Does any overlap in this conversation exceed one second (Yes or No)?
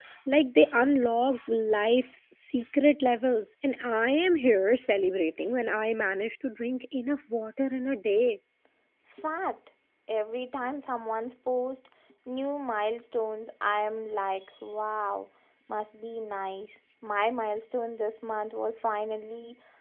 No